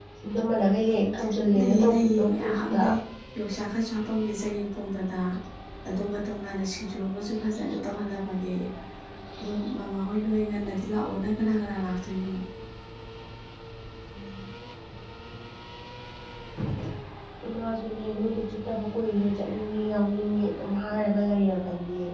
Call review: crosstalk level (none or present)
present